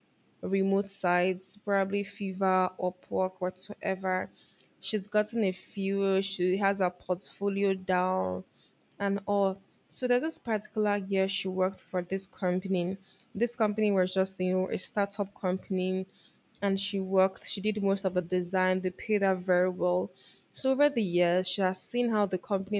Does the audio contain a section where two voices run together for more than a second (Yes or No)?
No